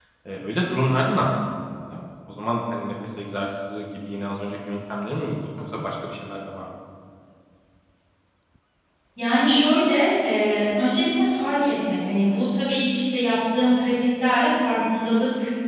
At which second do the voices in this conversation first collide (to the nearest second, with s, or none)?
none